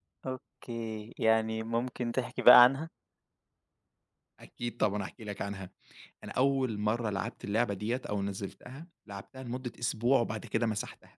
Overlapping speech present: No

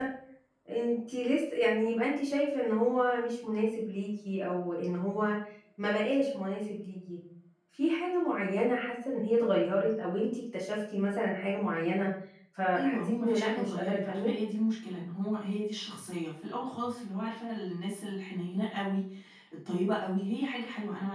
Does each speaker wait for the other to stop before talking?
No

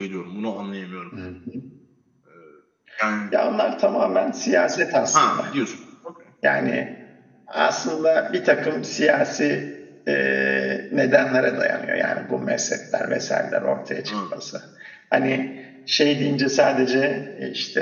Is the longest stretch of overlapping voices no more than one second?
Yes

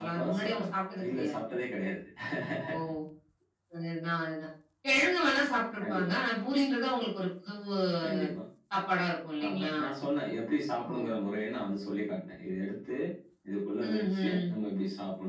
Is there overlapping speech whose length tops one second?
Yes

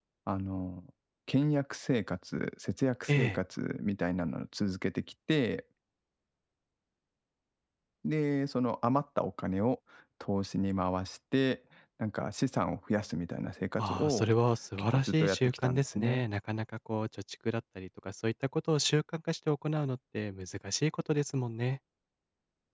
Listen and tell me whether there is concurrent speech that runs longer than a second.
Yes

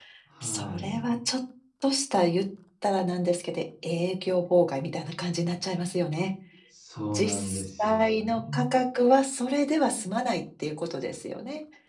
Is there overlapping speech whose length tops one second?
Yes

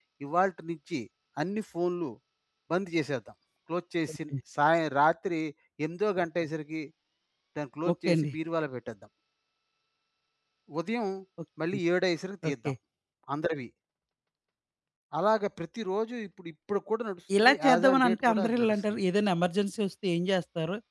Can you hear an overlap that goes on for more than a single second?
Yes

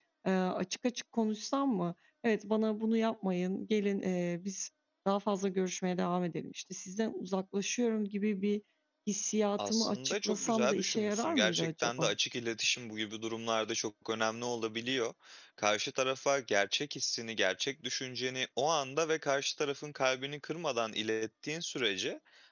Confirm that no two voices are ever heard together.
No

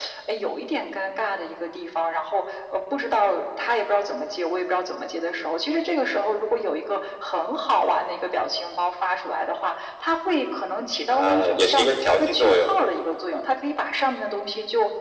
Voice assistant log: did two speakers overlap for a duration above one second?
Yes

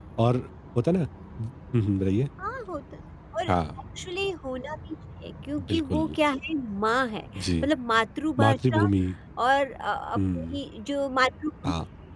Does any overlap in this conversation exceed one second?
No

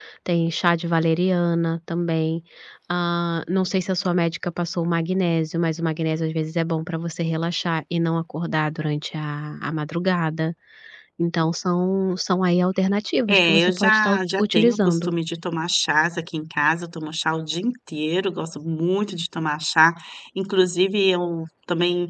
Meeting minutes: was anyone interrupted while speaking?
Yes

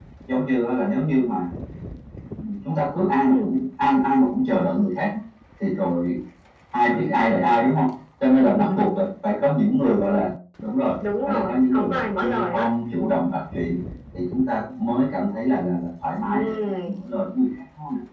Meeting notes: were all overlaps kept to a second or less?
No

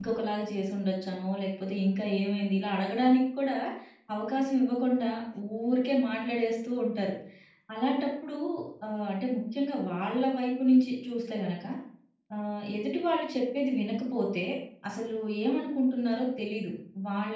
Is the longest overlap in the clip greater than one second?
No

